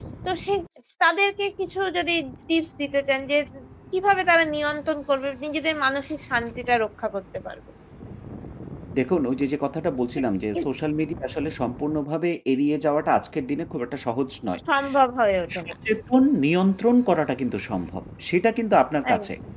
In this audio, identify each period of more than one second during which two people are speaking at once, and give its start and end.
none

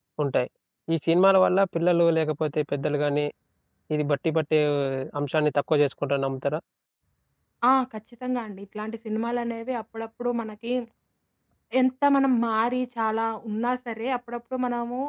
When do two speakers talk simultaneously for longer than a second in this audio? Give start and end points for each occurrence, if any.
none

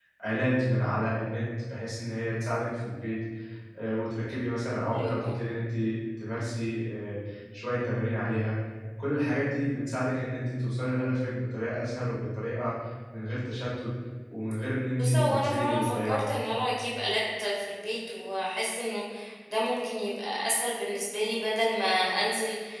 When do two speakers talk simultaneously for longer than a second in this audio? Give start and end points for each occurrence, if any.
15.0-16.3

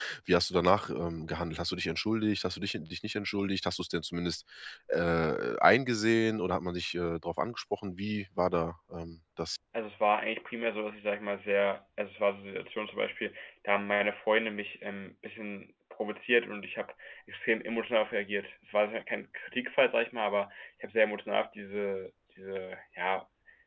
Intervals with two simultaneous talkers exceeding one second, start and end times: none

